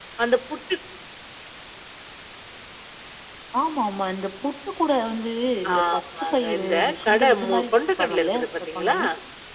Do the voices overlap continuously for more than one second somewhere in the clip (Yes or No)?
Yes